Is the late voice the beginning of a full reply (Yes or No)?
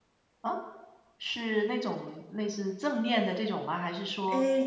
Yes